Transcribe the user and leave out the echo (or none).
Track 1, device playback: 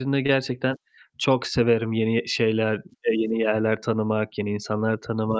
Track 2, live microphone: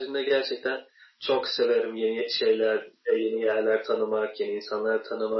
none